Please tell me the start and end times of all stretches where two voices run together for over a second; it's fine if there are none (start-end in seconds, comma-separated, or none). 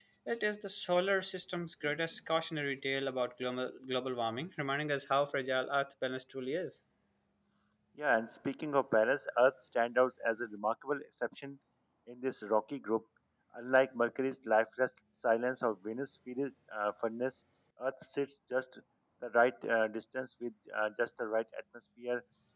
none